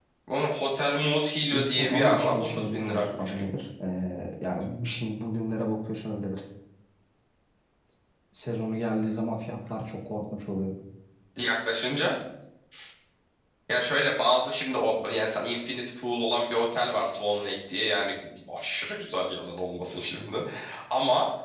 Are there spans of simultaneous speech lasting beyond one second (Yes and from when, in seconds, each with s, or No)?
Yes, from 1.5 s